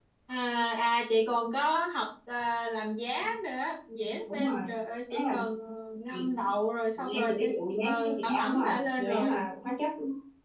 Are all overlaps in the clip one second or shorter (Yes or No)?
No